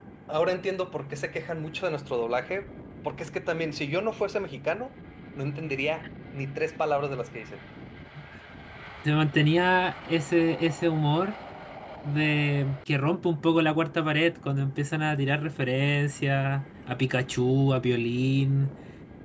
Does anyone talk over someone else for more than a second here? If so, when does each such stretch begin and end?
none

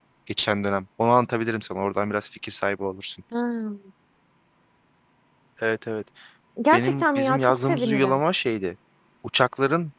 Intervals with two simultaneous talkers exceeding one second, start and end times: 6.7-8.2

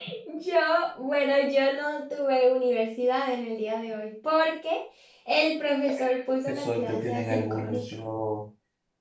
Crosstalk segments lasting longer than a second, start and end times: 6.5-7.9

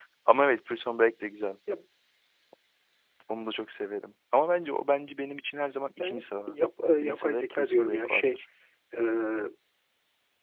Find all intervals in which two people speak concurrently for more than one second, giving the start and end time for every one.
7.0-8.4

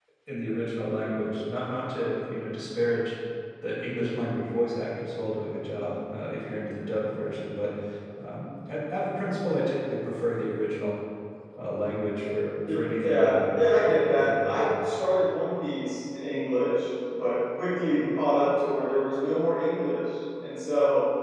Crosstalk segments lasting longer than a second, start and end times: 13.0-14.8

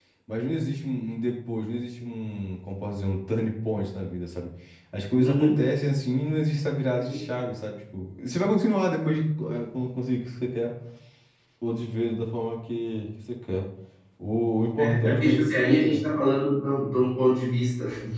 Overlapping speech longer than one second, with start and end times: 14.8-16.0

